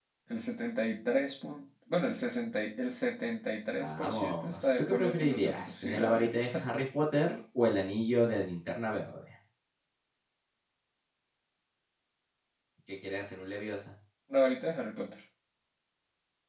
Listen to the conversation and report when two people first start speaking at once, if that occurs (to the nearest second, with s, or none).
4 s